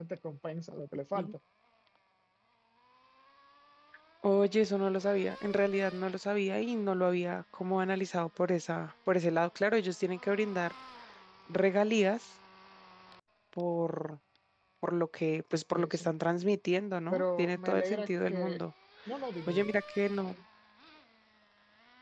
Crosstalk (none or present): present